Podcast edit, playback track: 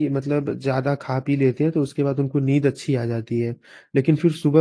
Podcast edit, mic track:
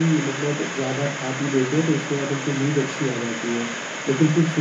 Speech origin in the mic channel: echo only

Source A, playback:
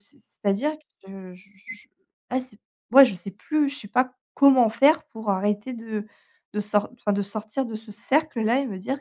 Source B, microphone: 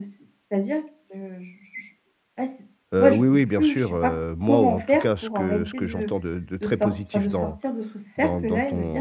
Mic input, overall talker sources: both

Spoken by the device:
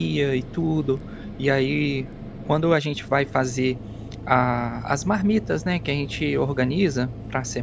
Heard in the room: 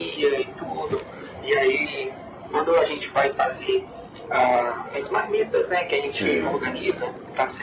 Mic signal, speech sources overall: both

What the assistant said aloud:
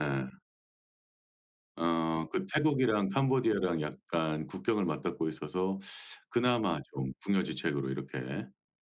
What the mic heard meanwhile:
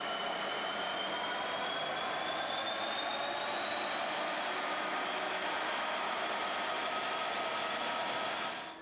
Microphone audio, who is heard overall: neither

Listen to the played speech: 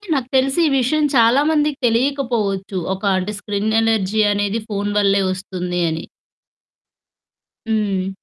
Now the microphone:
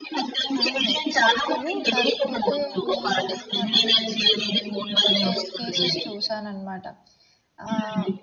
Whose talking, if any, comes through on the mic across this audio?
both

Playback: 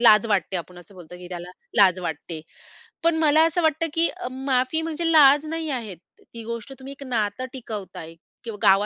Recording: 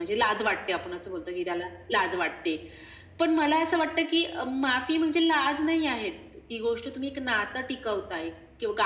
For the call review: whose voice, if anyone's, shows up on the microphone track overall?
echo only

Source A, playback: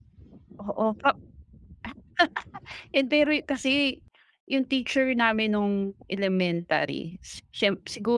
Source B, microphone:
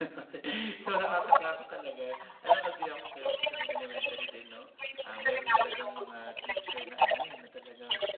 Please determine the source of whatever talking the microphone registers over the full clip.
both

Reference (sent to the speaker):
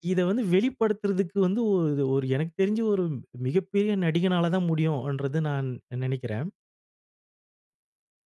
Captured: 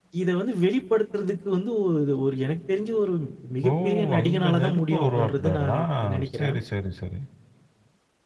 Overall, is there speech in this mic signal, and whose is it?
both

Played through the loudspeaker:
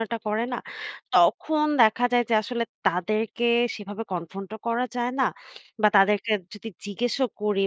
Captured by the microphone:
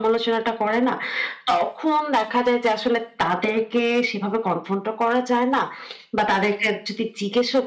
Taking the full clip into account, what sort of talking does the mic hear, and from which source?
echo only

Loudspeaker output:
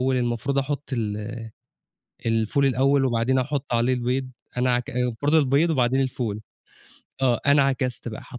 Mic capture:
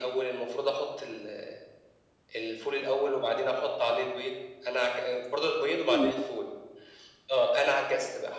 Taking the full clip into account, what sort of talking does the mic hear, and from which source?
both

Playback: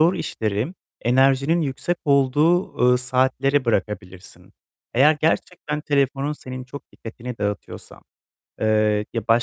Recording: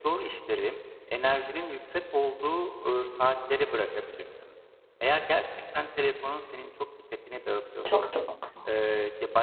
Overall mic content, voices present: both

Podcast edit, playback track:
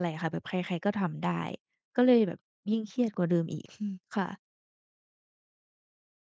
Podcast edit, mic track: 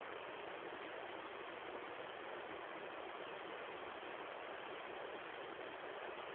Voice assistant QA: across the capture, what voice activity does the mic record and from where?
neither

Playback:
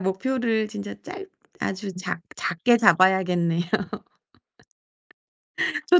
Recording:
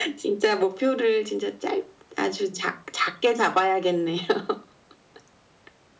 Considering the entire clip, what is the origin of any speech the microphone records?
echo only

